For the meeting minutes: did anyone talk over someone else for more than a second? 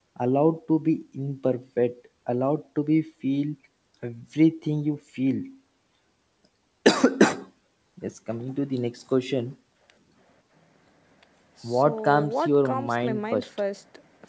Yes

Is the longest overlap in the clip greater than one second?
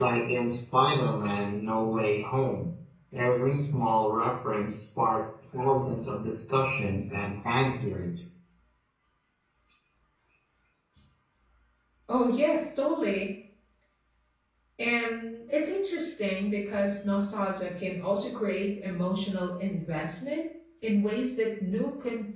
No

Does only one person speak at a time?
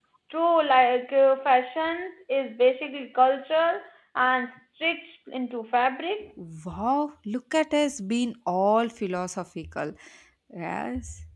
Yes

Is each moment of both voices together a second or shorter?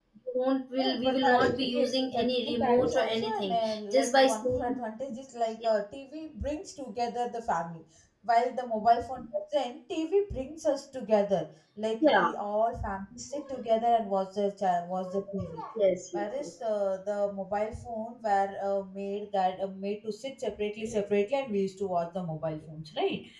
No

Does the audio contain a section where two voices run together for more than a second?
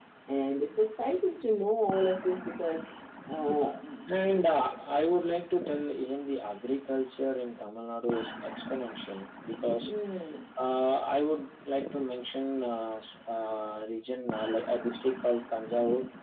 No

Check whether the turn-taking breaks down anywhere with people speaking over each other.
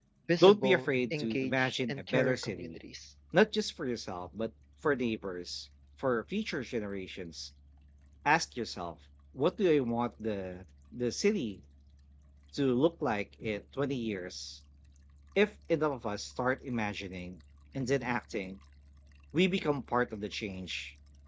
Yes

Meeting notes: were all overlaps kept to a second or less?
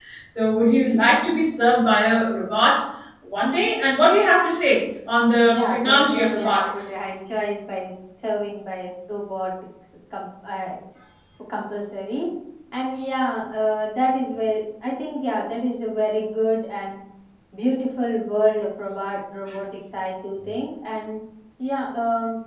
No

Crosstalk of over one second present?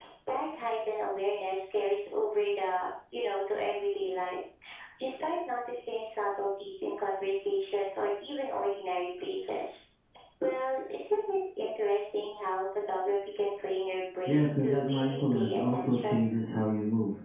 Yes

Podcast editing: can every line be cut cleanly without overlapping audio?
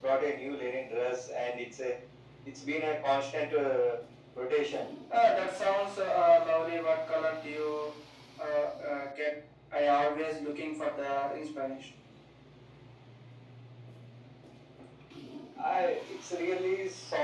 Yes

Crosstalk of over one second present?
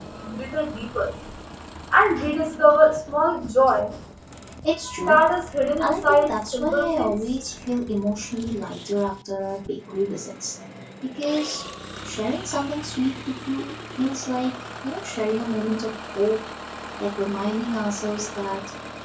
Yes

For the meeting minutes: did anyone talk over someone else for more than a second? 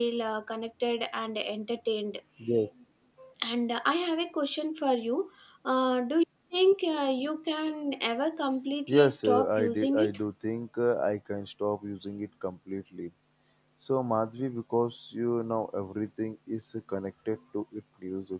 Yes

